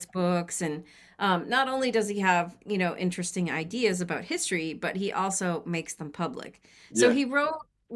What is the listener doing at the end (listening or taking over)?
listening